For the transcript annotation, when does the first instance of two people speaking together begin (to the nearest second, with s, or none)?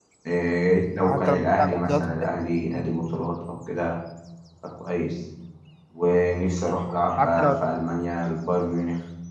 1 s